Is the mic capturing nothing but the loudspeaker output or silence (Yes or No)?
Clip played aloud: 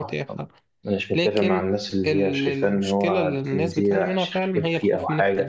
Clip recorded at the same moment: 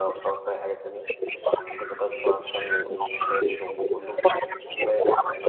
No